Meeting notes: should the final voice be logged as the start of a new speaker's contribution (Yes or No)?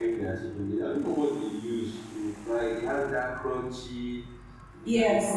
Yes